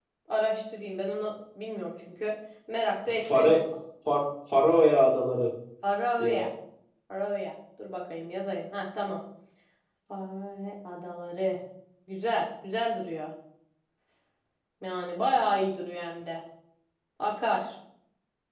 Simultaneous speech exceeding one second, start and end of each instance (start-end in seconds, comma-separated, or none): none